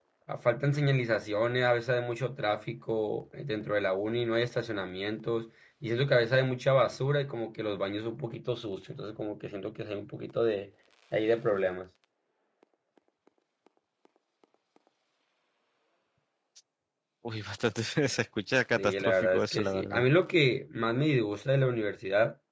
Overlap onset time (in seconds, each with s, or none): 18.8 s